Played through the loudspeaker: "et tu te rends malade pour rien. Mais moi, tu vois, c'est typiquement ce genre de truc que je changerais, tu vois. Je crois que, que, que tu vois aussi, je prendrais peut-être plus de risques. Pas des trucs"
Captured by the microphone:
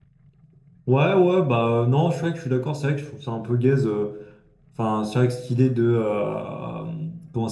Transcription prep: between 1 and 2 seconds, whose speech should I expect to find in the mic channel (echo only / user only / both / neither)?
user only